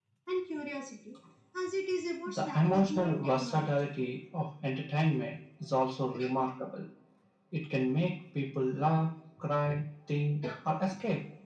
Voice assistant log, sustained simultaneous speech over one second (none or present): present